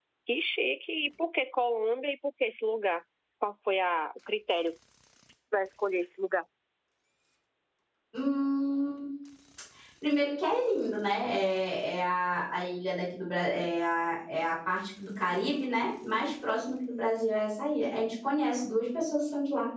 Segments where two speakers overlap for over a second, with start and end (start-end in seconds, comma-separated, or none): none